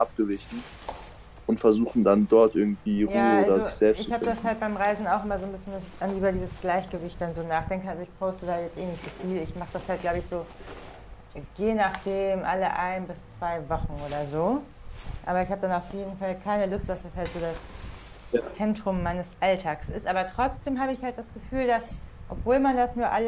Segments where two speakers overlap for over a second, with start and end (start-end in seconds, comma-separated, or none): 3.0-4.5